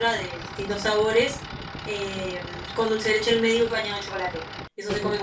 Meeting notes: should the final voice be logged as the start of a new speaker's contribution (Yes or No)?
No